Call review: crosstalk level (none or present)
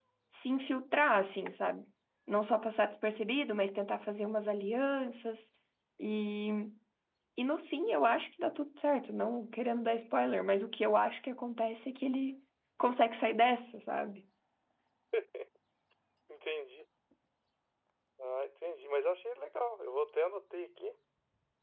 none